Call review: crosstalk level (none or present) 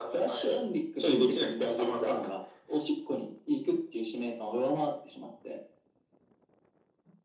present